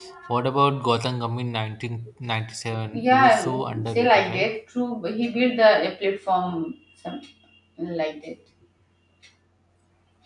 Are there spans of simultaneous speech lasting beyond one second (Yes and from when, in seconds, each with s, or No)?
Yes, from 2.9 s